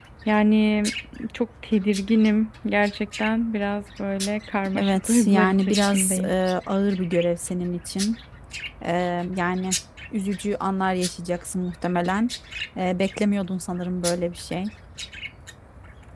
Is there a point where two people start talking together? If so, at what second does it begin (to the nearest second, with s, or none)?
5 s